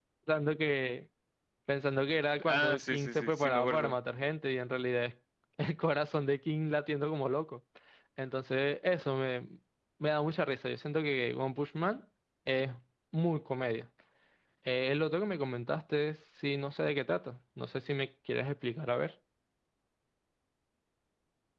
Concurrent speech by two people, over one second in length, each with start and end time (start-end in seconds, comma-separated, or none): 2.5-4.0